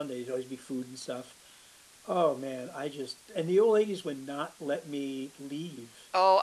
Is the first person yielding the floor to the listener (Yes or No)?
Yes